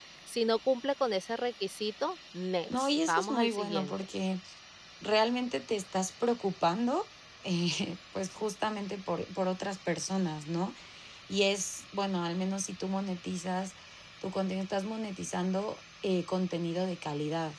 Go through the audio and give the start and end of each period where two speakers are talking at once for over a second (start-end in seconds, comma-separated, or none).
2.8-4.0